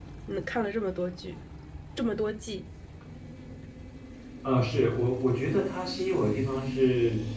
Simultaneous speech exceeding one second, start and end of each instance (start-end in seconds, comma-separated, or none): none